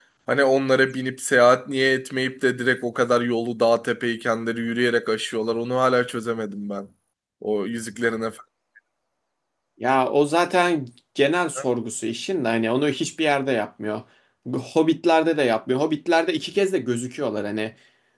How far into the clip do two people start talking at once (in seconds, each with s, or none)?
none